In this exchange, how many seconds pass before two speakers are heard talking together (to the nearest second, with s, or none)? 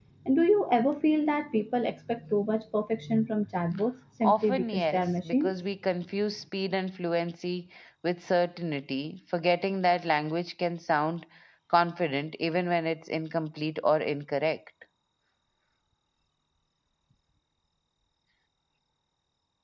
4 s